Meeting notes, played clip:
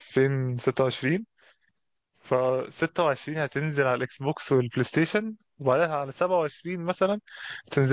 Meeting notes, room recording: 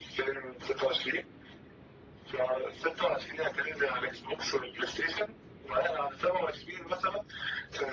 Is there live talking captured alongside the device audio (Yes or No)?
No